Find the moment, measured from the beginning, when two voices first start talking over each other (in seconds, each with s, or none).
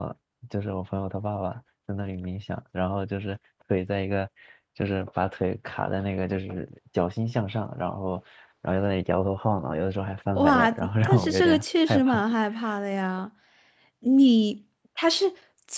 10.4 s